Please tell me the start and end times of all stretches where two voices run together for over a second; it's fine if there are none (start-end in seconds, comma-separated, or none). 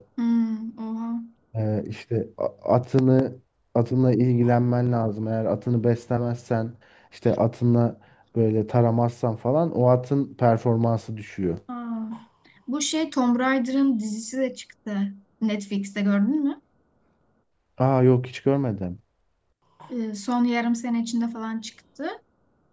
none